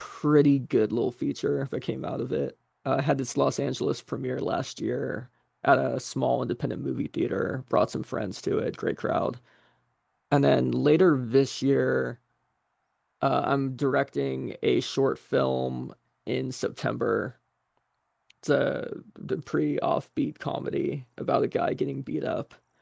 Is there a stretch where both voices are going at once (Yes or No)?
No